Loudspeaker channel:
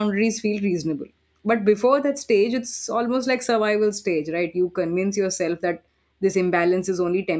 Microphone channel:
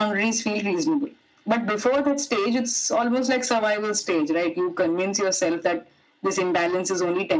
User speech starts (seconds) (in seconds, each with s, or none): none